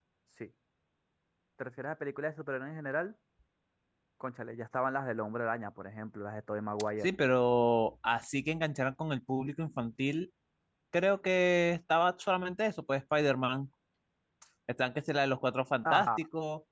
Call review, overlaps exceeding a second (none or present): none